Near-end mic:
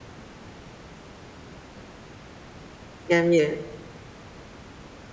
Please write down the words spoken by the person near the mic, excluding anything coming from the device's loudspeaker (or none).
جميل،